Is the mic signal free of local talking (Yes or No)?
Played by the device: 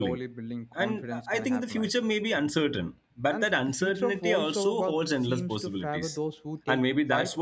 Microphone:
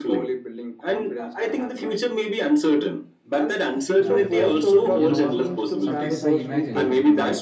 No